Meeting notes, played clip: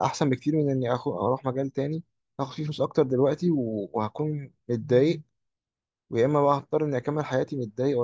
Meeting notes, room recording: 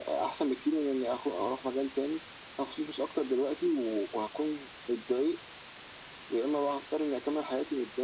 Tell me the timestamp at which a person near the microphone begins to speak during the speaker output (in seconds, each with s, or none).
none